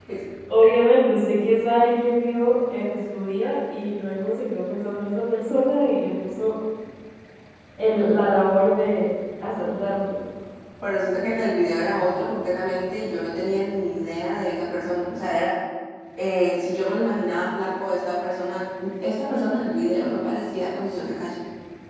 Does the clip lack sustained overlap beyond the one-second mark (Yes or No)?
Yes